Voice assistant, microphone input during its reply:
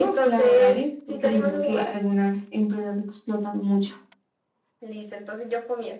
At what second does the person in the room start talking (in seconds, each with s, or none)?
none